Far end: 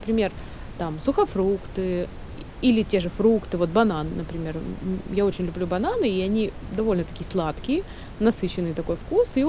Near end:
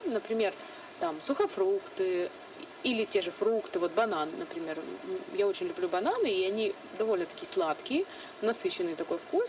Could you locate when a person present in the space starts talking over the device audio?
none

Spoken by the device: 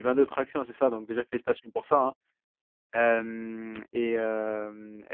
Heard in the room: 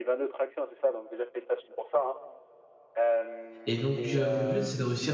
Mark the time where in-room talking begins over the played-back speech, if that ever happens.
3.7 s

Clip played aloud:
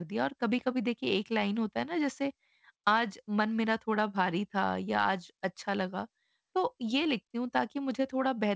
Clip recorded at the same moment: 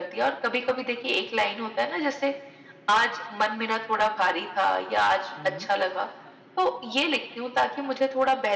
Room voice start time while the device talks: 5.4 s

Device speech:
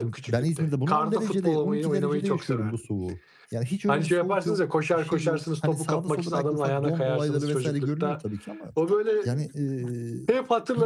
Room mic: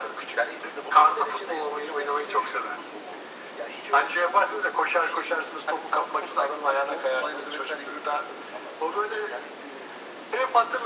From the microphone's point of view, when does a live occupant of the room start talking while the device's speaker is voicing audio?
none

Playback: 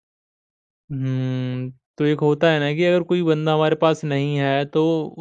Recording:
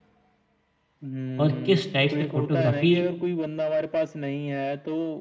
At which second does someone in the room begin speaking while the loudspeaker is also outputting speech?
1.4 s

